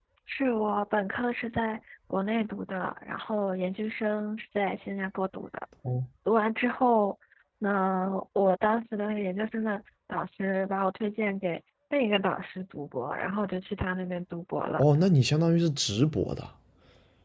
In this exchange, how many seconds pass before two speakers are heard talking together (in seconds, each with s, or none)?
none